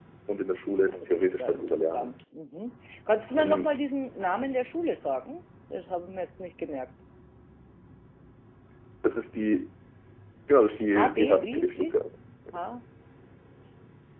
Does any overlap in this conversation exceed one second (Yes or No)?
Yes